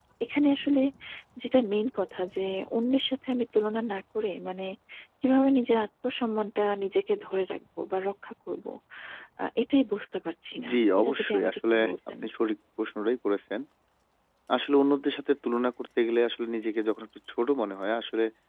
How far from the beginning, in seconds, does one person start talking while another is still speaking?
10.6 s

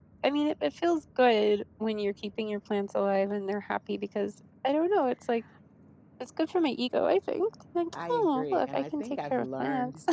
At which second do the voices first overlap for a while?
8.0 s

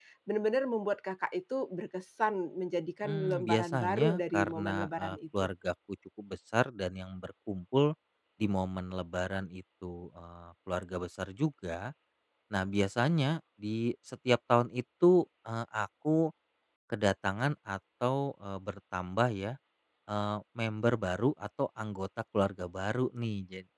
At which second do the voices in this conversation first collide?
3.0 s

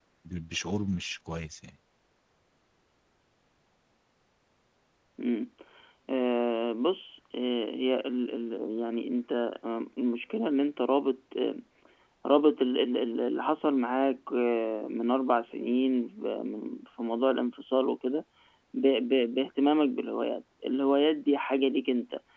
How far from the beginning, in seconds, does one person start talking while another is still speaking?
none

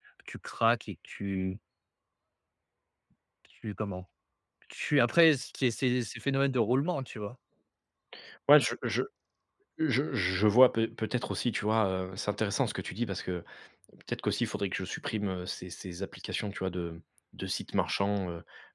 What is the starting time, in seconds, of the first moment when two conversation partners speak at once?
none

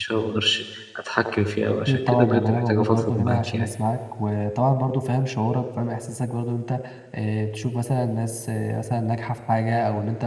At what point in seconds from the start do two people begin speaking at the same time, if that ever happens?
1.9 s

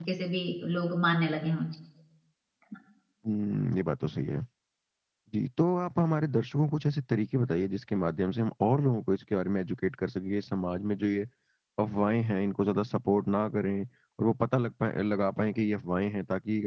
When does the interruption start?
none

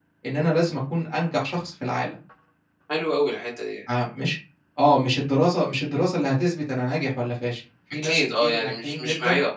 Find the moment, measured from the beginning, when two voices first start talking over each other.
8.0 s

